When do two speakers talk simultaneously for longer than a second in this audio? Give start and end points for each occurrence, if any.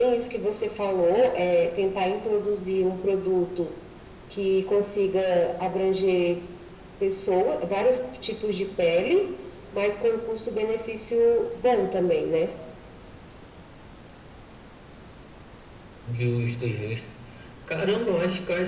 none

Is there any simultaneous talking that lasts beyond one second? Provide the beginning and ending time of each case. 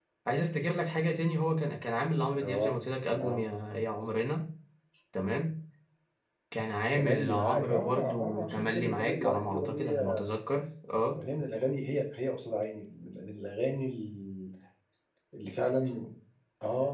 6.9-10.3

